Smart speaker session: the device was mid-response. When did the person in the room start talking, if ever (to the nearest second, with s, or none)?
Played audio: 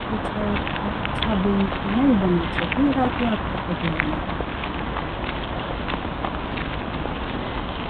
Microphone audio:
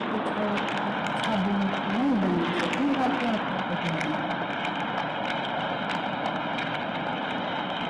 none